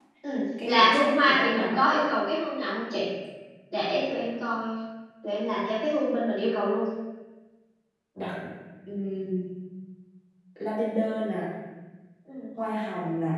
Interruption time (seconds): 0.6 s

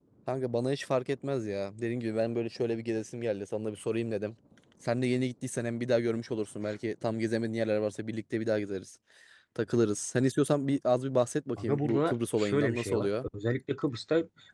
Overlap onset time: 11.6 s

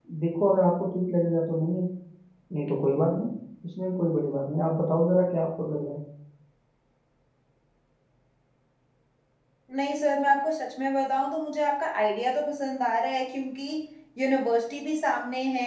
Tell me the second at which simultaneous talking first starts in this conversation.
none

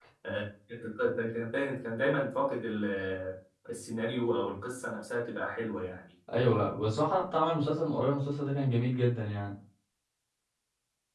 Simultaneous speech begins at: none

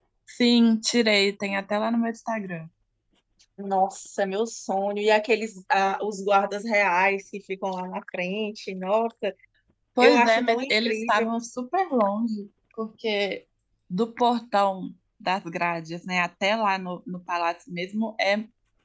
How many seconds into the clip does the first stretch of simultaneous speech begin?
10.0 s

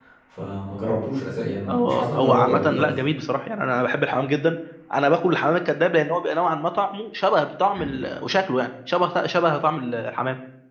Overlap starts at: 1.7 s

